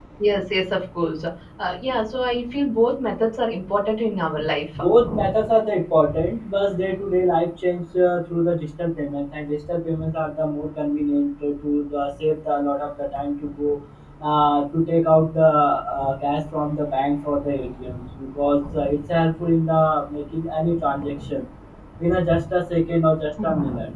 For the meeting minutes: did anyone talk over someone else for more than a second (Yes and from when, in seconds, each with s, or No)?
No